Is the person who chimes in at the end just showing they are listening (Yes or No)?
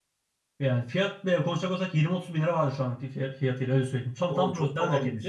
No